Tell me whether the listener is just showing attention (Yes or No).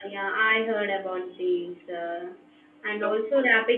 Yes